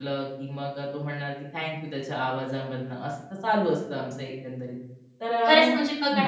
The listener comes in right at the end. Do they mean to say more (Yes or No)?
Yes